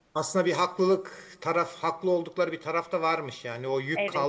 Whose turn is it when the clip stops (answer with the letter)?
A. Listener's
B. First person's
B